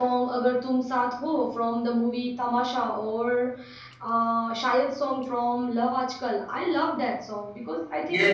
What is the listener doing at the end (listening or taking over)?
taking over